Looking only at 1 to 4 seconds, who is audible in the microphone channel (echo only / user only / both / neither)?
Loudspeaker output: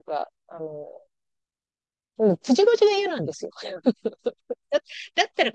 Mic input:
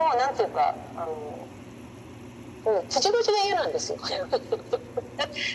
echo only